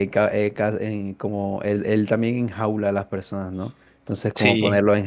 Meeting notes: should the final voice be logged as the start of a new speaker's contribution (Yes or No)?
No